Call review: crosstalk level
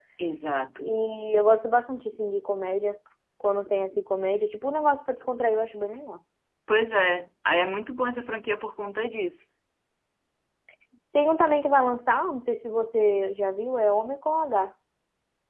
none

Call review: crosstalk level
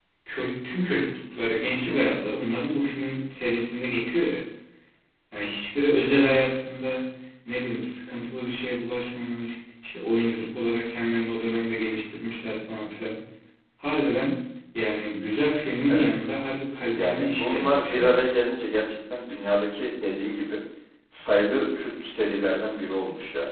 present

